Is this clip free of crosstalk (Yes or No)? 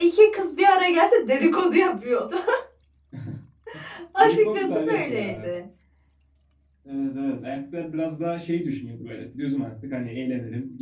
No